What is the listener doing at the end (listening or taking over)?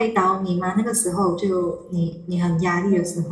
taking over